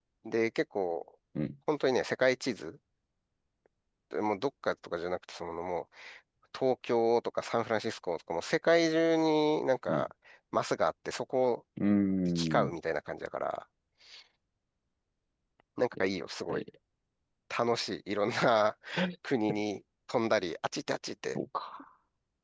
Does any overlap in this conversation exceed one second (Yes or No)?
No